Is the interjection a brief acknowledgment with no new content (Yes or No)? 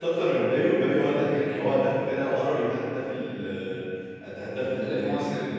Yes